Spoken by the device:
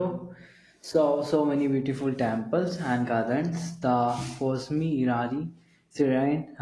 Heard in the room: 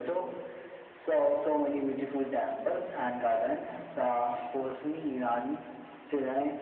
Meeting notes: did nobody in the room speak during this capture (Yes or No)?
Yes